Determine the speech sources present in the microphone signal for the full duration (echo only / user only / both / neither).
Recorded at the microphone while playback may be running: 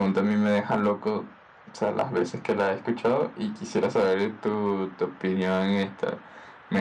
echo only